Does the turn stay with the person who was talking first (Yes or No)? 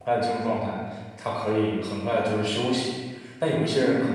Yes